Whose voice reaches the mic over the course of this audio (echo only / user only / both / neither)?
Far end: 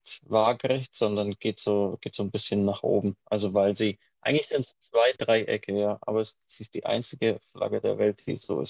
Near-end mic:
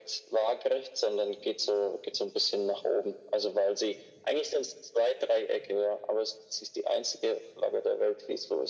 echo only